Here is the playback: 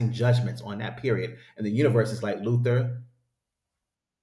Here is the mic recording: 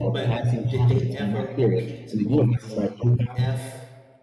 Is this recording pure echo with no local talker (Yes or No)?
No